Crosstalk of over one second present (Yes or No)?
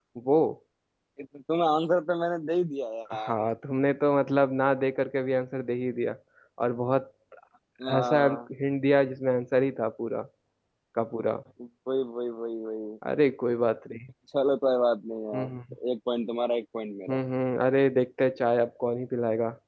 No